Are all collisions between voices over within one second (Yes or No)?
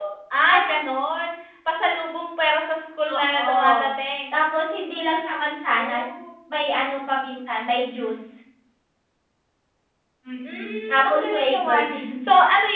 No